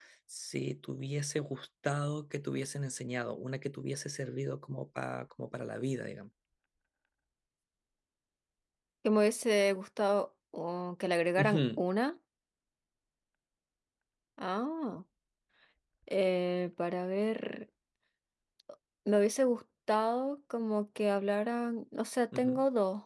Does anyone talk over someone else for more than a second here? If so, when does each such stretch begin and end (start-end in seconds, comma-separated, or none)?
none